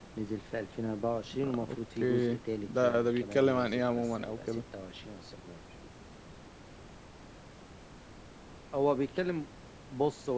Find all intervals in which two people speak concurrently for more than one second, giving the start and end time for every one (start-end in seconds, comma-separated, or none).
1.4-4.6